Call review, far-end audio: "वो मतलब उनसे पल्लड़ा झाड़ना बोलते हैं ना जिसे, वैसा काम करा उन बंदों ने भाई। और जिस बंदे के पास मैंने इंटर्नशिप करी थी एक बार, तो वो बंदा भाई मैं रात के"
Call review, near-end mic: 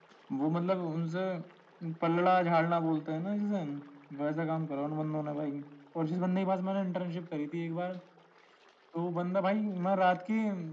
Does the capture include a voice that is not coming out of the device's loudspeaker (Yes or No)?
No